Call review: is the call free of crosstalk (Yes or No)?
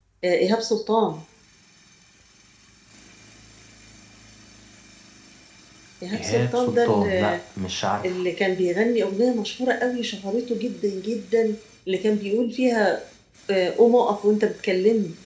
No